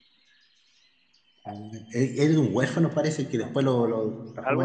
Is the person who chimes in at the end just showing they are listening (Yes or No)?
Yes